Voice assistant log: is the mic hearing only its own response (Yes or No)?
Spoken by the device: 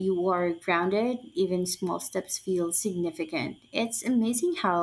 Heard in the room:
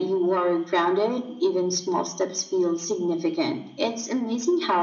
Yes